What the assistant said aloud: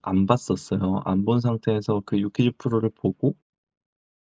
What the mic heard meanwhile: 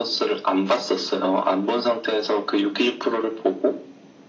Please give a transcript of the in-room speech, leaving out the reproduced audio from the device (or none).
none